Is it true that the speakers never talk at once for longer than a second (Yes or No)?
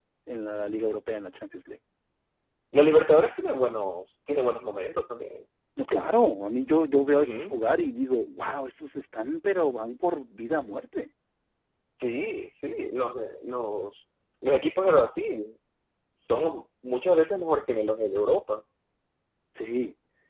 Yes